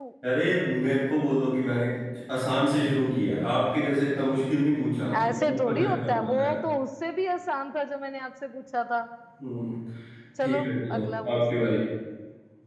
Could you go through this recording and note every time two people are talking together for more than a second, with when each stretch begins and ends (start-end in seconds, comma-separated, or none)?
5.2-6.5